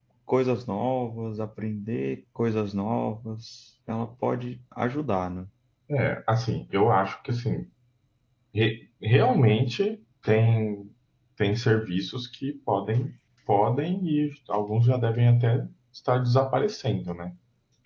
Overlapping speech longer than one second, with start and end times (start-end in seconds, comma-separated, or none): none